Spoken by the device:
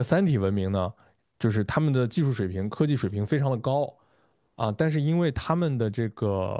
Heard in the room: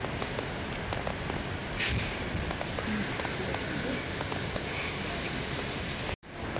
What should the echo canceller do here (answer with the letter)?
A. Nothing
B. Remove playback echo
A